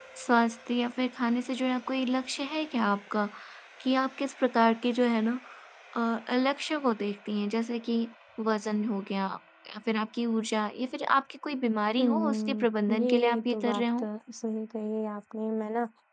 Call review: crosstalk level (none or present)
present